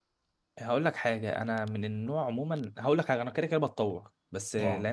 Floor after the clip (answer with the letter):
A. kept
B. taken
A